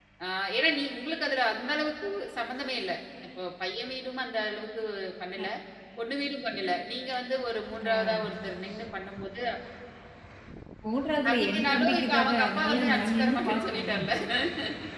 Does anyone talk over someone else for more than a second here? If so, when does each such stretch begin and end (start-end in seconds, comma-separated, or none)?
11.3-14.0